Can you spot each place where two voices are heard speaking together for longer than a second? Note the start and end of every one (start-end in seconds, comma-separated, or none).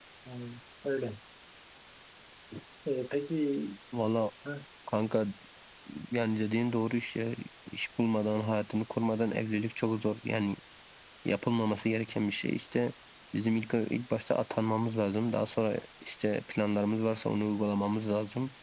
none